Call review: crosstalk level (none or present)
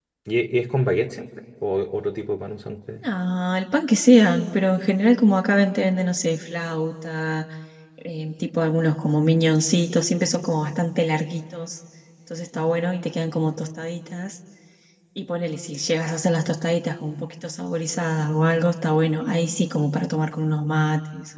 none